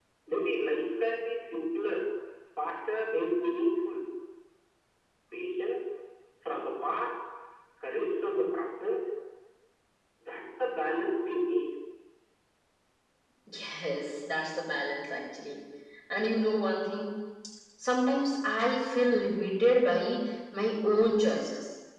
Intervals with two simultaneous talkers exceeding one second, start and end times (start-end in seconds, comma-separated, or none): none